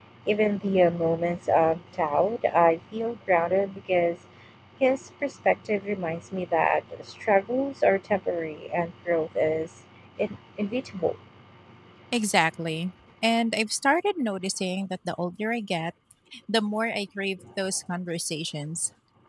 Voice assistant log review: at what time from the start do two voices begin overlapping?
none

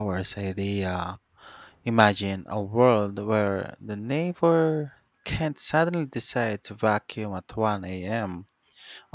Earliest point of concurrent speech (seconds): none

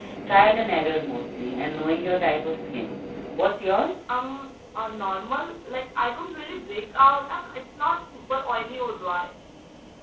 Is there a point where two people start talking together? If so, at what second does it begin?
none

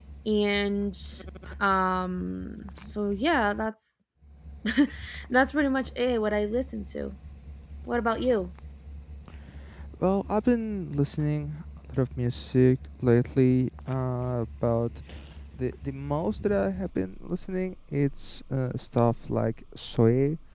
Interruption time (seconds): none

